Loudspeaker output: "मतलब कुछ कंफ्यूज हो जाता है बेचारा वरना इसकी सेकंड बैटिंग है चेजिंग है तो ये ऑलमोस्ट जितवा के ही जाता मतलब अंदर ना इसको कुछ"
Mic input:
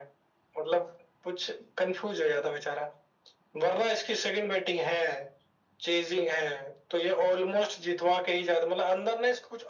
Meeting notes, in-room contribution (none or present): none